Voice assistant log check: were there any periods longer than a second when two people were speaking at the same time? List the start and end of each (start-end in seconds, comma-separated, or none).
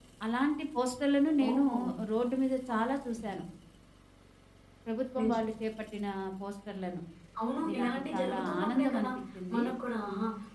7.6-9.1